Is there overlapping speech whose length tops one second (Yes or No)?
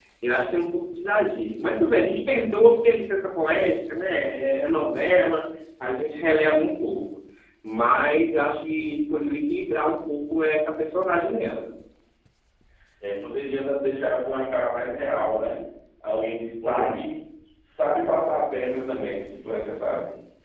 No